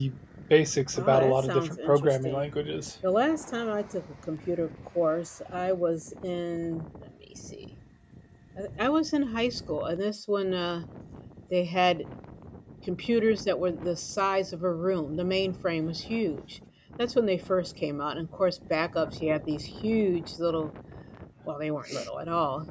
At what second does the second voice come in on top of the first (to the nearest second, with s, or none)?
1 s